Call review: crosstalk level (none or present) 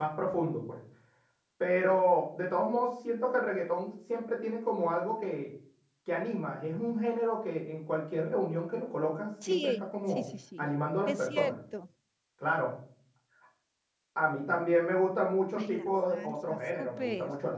present